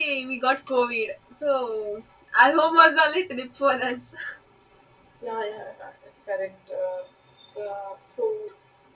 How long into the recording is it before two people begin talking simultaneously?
none

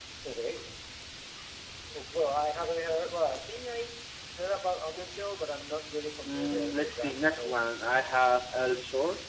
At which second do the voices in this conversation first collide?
6.2 s

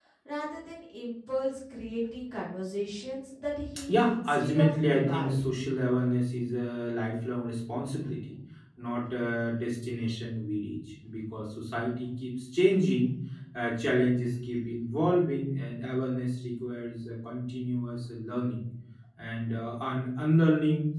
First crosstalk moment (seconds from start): 3.9 s

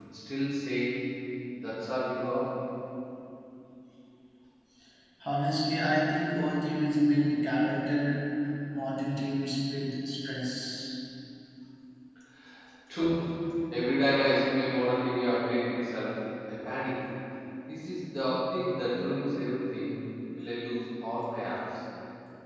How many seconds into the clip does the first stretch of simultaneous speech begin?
none

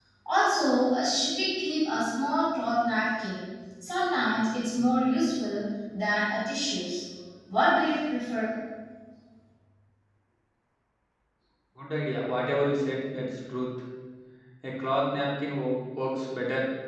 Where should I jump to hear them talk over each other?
none

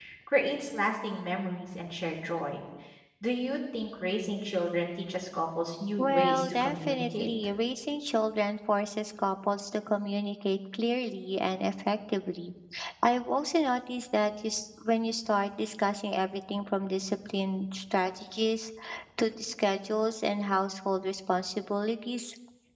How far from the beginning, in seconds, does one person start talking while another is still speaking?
6.0 s

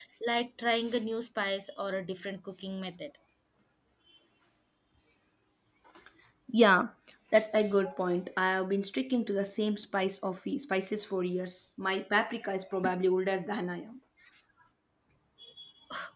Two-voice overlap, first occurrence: none

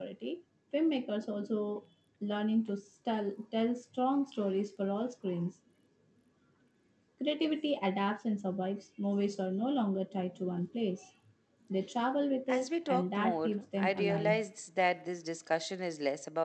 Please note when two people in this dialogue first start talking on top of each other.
12.5 s

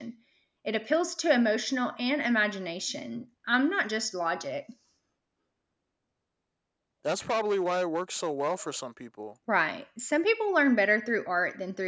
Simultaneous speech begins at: none

